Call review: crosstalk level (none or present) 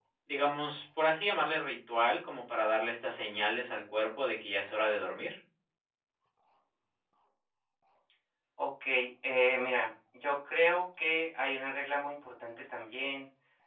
none